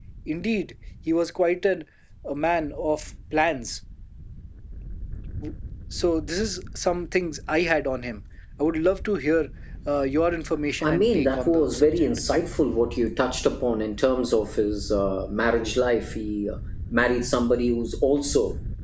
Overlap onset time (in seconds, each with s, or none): 10.8 s